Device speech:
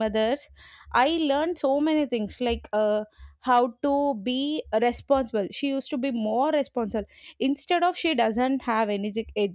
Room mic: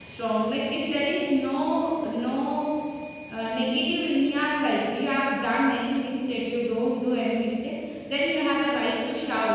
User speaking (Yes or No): Yes